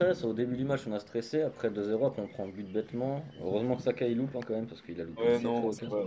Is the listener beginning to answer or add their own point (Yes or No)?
Yes